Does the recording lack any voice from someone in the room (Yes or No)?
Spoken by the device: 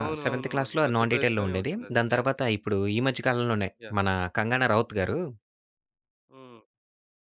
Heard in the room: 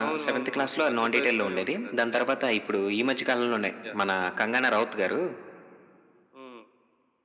Yes